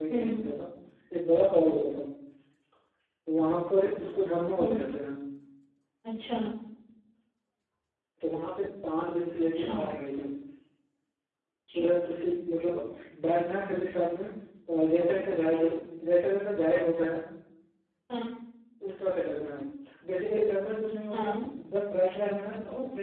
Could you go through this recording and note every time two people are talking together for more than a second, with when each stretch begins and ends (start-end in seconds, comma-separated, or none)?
none